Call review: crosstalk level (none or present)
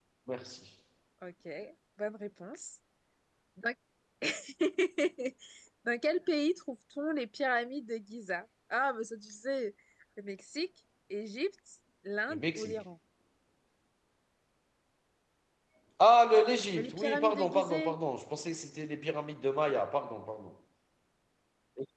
present